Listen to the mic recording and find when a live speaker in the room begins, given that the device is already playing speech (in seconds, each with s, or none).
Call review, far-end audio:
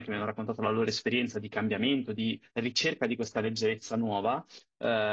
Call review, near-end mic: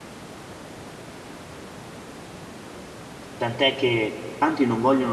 3.4 s